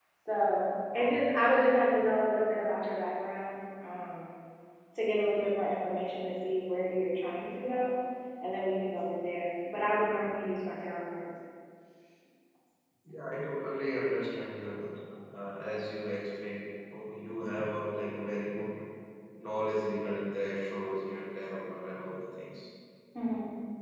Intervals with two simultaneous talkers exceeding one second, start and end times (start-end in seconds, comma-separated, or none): none